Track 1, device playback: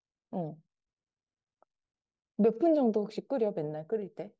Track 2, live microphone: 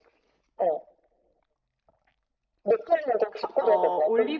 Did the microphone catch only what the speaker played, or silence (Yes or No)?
No